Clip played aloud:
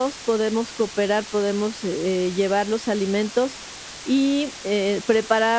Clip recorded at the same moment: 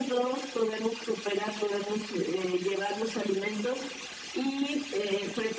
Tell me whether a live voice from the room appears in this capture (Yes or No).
No